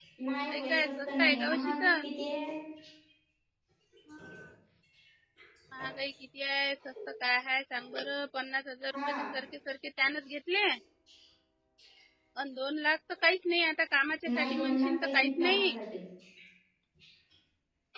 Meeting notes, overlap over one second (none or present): present